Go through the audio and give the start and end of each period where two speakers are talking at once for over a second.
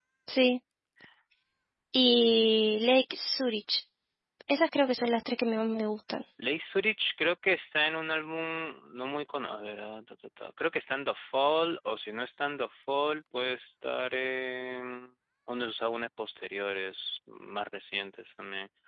none

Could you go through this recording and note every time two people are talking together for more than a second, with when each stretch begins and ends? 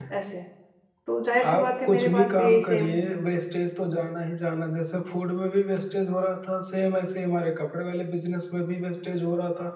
1.4-2.9

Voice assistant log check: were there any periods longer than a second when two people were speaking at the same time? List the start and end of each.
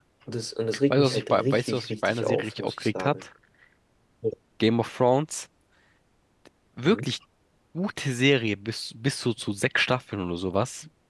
0.9-3.1

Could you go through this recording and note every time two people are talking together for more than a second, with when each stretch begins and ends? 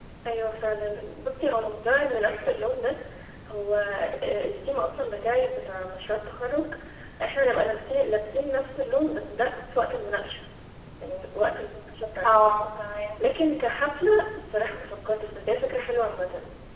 none

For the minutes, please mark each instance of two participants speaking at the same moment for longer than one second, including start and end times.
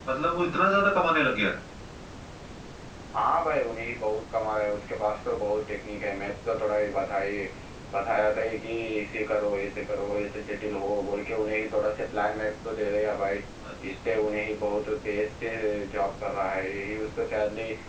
none

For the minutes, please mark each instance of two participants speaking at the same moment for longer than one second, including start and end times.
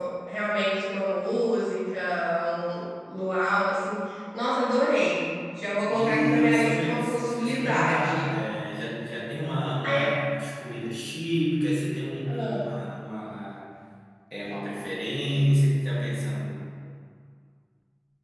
5.9-8.3

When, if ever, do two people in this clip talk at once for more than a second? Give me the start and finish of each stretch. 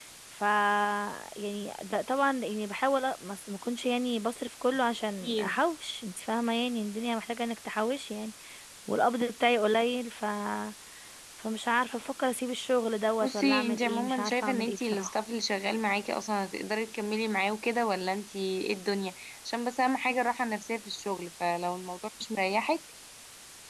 13.2-15.1

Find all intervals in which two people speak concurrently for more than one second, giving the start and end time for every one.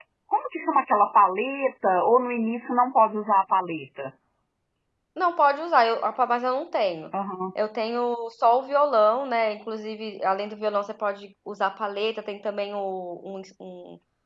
none

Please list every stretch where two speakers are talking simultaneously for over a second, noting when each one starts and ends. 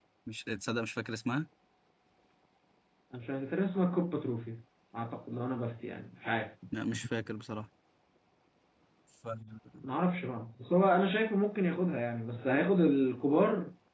none

